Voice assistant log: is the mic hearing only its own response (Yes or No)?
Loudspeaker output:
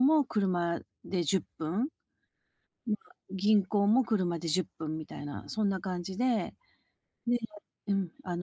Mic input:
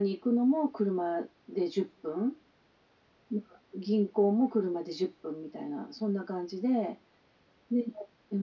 Yes